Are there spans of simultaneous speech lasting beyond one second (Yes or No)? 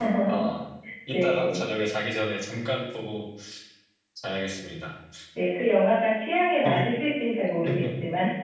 No